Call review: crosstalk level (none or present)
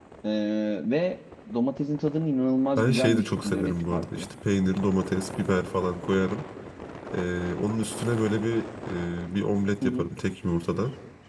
present